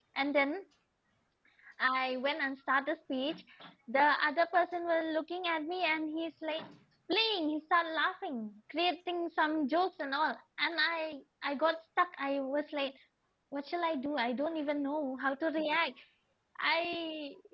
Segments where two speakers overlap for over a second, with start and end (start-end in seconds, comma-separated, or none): none